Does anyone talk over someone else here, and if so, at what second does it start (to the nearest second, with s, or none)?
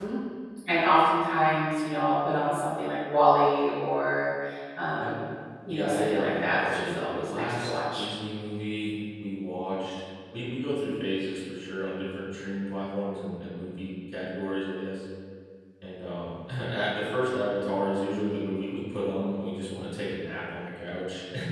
6 s